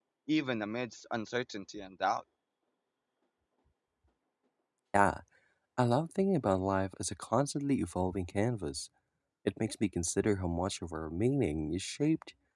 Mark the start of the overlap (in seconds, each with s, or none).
none